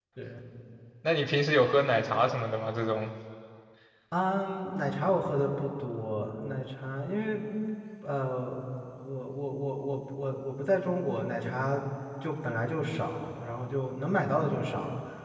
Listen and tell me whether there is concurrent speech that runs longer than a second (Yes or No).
No